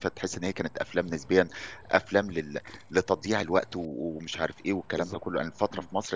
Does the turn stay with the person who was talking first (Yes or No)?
Yes